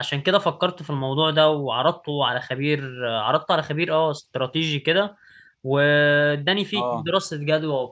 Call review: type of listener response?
listening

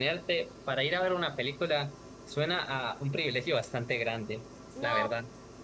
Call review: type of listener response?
taking over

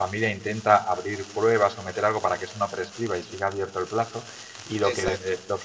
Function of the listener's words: listening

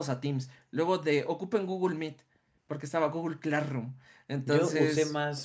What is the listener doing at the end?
taking over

